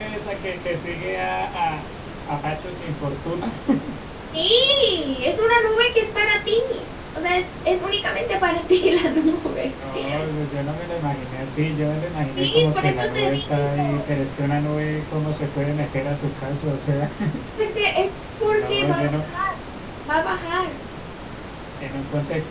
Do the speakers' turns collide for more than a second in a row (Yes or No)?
Yes